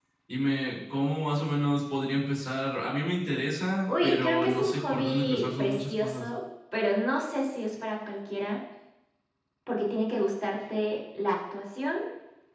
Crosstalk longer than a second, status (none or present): present